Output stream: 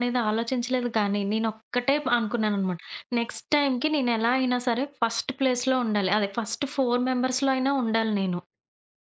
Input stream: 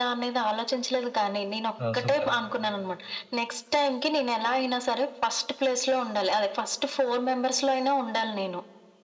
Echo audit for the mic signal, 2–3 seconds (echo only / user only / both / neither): both